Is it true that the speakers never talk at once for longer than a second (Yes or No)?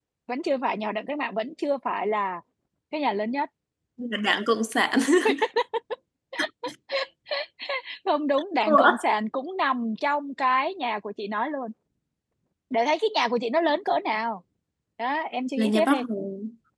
Yes